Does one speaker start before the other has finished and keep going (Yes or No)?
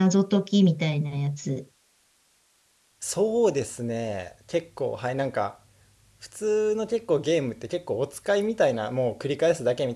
No